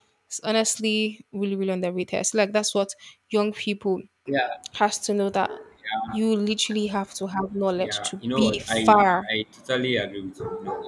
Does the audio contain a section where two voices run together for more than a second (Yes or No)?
Yes